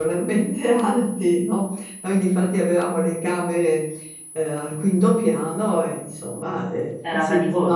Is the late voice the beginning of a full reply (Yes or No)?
No